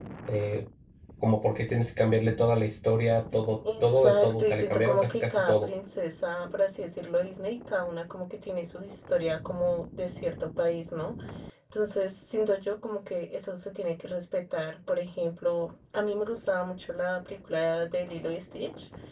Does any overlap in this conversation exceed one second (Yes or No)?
Yes